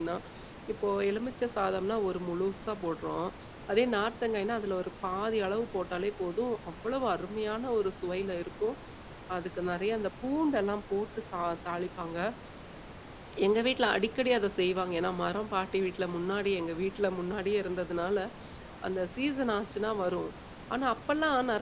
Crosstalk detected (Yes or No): No